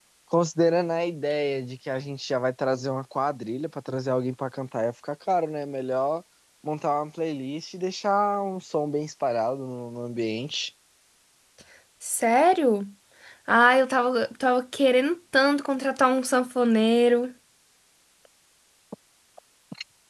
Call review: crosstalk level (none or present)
none